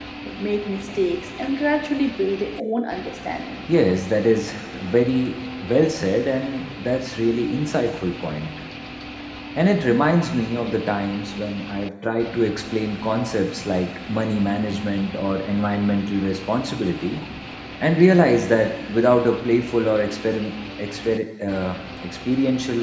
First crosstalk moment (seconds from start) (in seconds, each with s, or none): none